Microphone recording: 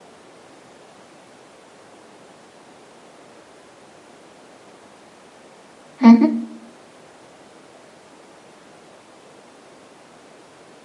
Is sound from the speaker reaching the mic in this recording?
No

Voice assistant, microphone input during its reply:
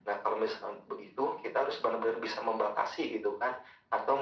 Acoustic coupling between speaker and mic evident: Yes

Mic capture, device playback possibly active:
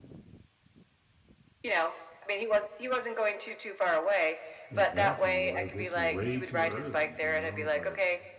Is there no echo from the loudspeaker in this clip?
No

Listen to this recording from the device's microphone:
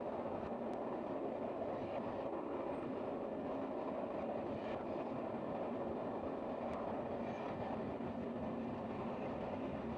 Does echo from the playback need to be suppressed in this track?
No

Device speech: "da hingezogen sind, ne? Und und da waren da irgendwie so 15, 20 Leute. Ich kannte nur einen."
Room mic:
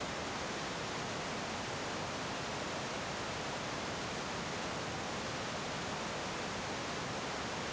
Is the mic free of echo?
Yes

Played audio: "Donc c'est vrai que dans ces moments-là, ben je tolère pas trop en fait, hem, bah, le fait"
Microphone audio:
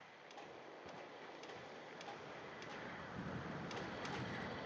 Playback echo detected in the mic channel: No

